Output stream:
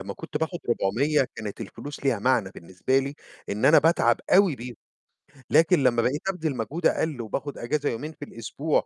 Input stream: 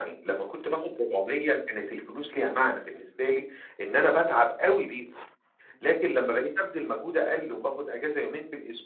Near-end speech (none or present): none